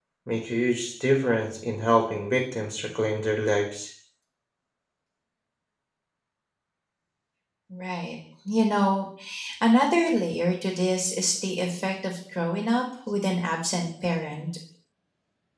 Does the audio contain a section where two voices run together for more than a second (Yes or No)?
No